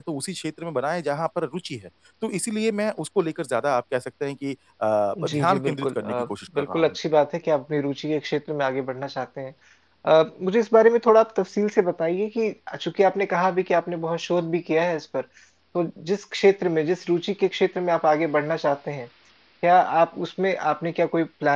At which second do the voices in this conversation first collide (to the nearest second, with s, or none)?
5 s